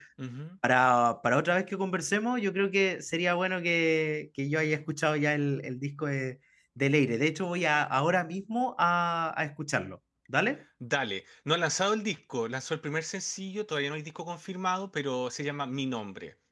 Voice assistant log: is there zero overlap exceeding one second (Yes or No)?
Yes